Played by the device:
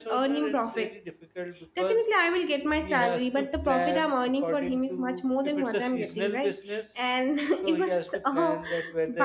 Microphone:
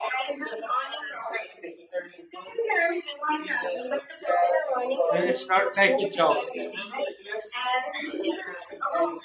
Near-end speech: present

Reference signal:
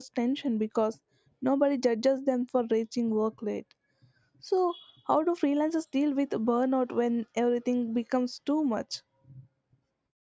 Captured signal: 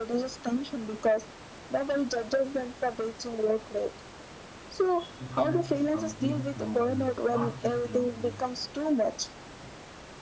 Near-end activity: present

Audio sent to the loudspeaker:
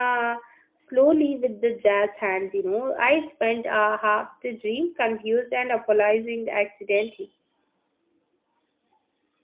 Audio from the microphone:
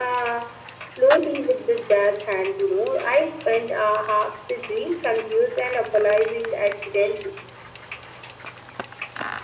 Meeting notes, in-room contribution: none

